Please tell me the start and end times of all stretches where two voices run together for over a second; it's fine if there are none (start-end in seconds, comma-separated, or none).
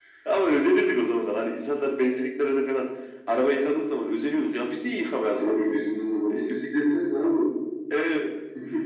none